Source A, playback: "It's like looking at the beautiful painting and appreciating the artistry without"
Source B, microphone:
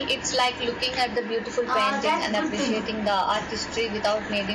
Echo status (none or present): present